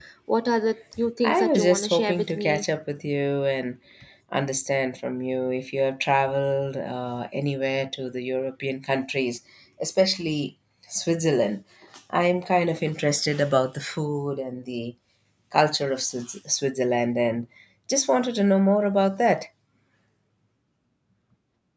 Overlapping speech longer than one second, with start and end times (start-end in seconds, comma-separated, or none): 1.2-2.6